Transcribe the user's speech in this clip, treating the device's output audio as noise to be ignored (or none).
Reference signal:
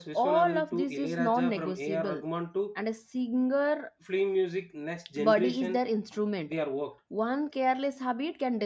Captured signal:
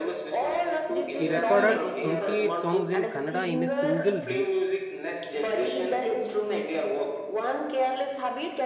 He recorded 28 songs in Kannada in a single day,